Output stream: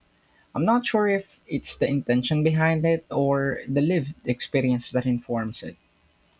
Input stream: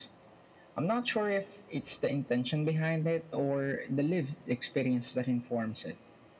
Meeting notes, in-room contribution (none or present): none